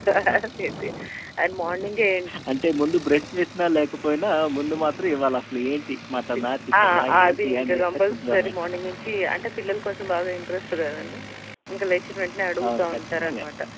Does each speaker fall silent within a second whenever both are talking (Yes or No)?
No